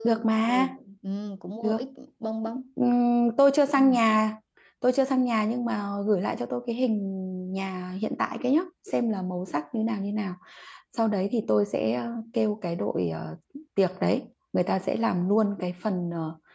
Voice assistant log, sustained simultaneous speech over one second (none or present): none